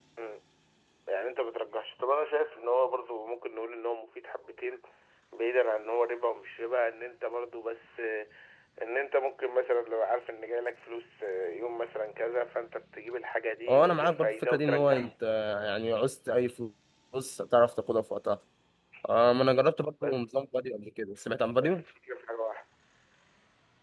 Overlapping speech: Yes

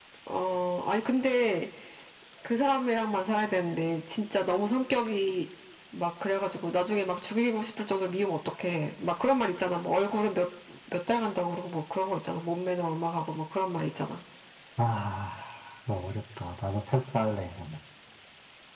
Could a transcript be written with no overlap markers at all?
Yes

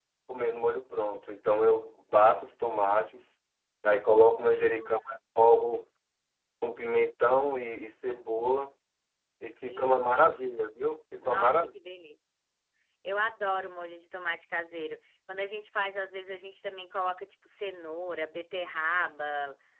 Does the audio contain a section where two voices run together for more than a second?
Yes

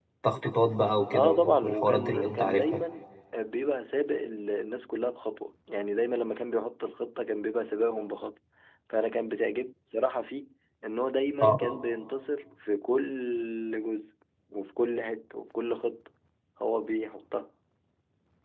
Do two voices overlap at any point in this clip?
Yes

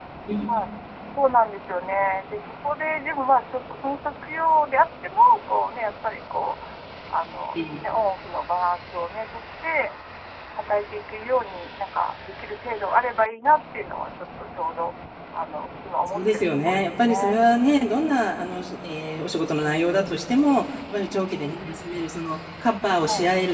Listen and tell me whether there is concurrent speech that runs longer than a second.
Yes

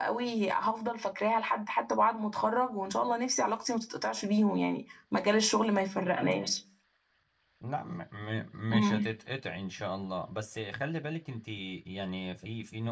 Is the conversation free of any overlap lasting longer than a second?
Yes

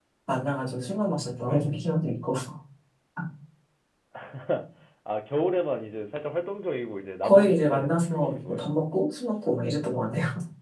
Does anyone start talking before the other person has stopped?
Yes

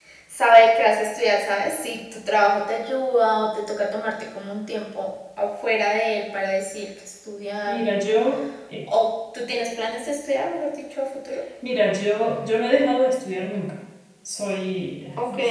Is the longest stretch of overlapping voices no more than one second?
Yes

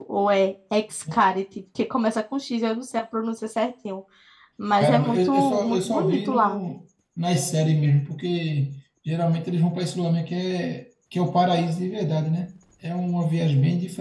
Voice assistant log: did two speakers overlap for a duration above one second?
Yes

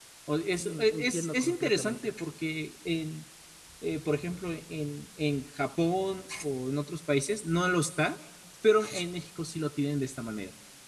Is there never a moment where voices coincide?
No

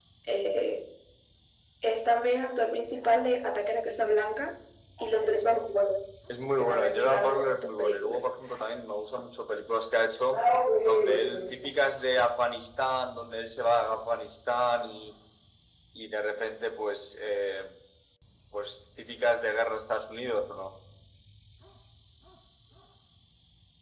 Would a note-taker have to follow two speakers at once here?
Yes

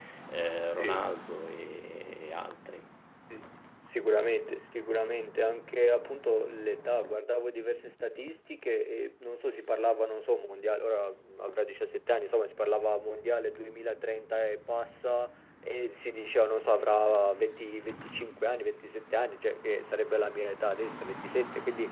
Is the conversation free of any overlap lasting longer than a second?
Yes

